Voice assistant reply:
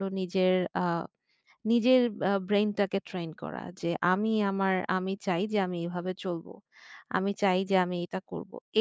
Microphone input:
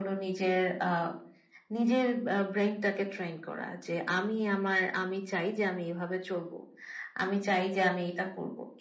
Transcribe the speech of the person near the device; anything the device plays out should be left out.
none

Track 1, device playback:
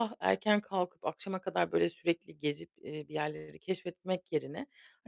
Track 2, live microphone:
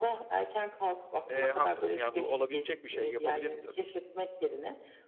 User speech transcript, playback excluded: Eee, haklısın ya, bu olabilecek bir şey. Yapabilirim tabii ki.

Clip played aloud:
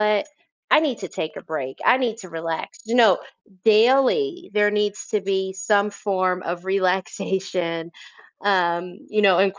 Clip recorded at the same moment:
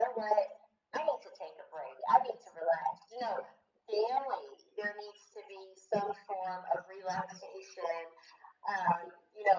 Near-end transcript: none

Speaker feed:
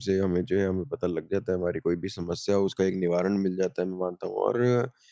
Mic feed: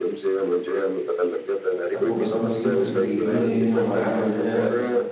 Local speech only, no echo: आपको बताऊँ कि तकनीक ने हमा हमें जो है

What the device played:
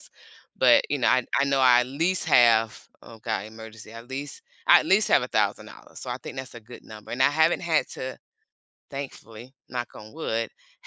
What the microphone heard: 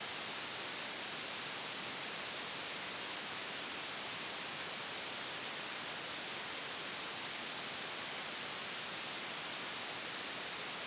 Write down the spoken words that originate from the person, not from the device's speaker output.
none

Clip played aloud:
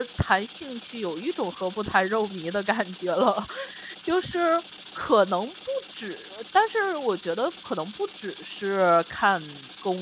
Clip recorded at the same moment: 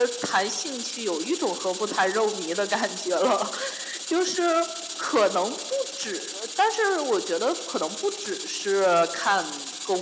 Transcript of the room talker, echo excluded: none

